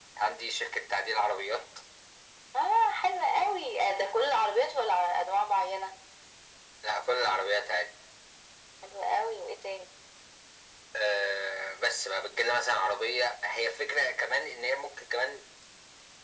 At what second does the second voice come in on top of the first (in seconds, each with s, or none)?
none